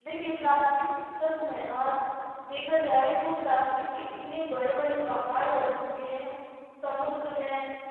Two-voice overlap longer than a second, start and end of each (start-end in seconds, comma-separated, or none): none